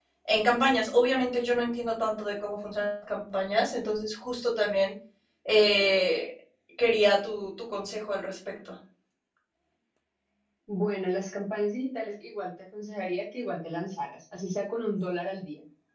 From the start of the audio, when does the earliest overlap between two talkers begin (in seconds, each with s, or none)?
none